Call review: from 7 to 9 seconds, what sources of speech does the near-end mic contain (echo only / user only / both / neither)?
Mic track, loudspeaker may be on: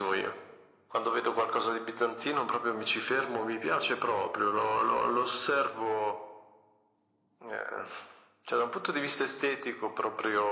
echo only